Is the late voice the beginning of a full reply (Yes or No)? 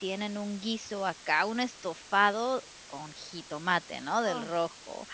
No